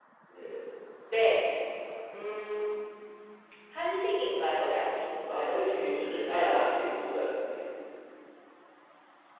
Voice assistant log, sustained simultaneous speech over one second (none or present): present